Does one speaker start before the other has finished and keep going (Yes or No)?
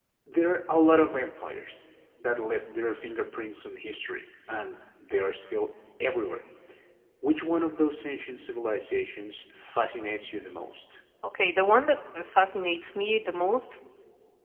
No